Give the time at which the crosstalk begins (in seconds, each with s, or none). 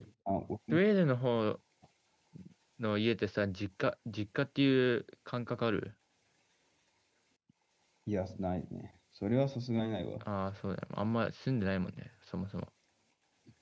none